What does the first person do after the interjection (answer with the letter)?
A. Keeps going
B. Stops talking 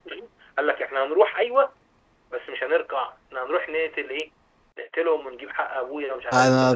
B